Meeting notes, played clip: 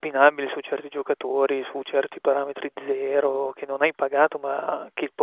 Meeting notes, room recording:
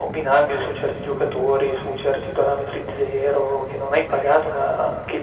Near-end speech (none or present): none